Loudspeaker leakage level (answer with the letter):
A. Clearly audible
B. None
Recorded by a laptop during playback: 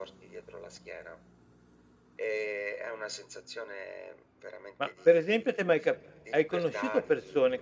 A